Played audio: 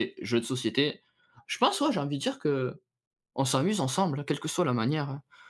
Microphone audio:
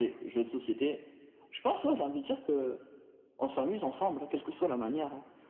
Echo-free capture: No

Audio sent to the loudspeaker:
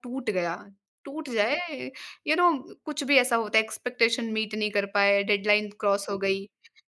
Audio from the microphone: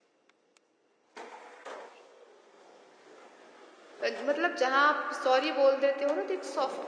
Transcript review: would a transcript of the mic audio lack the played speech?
Yes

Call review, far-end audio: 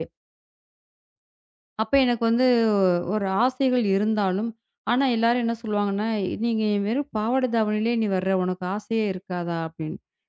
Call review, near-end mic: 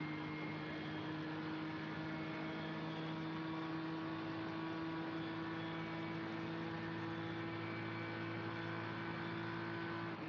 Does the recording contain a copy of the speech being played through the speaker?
No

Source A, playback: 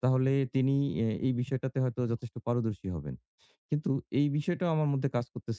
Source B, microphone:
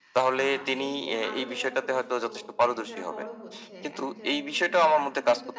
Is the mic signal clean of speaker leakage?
No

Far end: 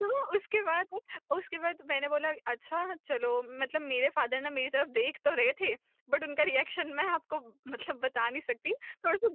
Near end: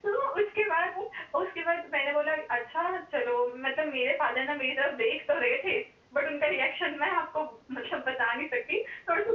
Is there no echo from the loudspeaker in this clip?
No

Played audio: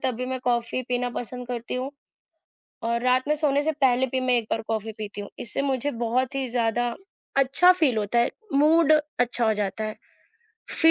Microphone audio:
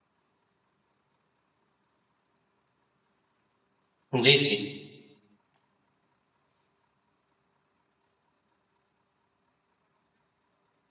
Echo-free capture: Yes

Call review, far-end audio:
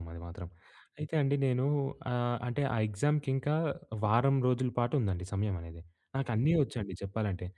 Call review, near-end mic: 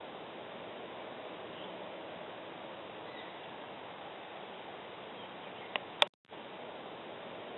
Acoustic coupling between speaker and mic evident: No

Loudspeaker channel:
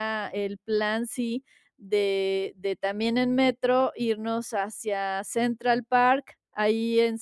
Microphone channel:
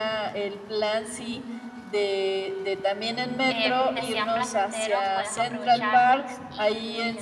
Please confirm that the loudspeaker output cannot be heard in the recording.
No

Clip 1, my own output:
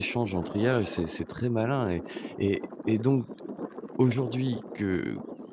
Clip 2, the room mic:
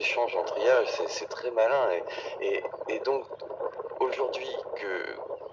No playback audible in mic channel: No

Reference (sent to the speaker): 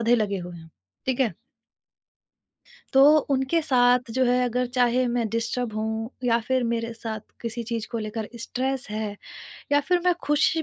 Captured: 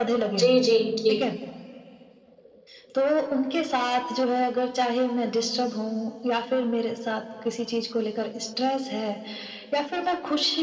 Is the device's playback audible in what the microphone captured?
Yes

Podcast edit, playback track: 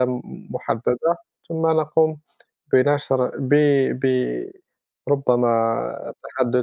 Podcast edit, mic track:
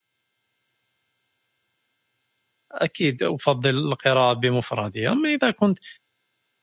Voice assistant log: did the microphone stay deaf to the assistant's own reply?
Yes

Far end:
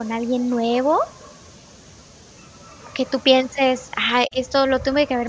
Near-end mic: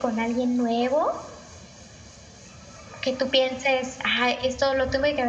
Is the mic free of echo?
No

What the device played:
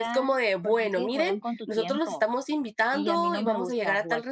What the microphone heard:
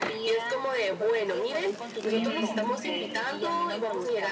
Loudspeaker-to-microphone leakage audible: Yes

